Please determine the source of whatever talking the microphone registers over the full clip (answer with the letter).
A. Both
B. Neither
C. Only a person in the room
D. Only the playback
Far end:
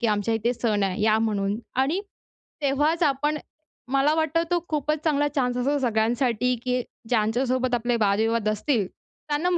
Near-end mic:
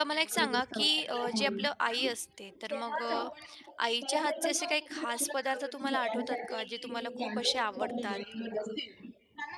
A